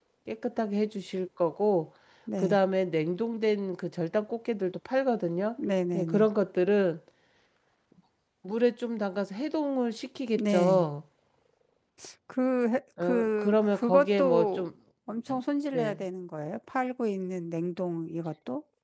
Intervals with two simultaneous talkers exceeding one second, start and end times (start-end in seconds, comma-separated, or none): 13.0-14.7